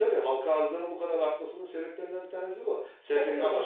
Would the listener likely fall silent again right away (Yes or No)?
Yes